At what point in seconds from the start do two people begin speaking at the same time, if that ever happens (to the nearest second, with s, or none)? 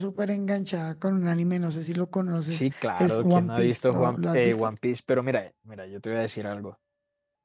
3 s